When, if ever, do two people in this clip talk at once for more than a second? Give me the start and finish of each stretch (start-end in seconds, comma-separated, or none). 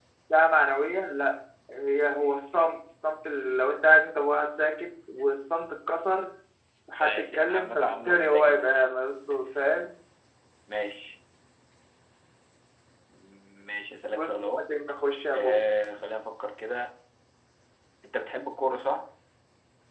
7.0-8.9